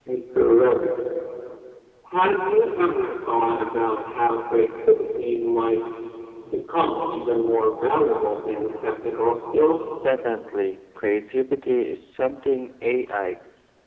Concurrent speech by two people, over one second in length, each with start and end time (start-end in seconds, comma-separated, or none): none